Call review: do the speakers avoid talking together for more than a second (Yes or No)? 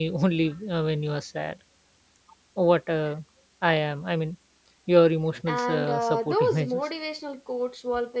No